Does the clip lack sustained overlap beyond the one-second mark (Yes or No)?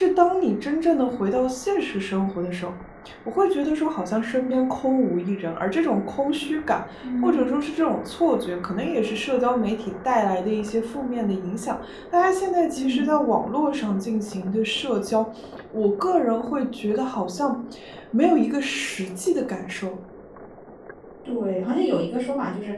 Yes